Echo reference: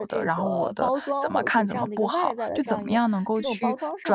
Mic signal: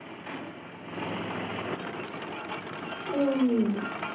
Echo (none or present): none